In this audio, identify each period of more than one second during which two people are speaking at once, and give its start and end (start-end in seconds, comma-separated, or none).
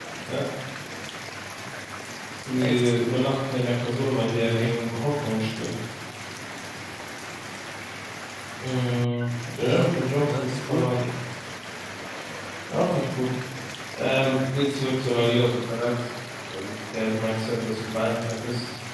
9.6-10.9